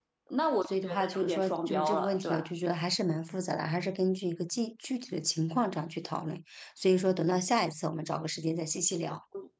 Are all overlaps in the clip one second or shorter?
No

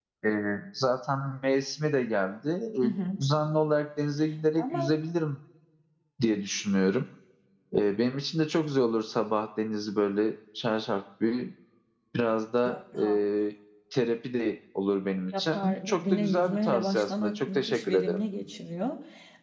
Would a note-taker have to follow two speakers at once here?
Yes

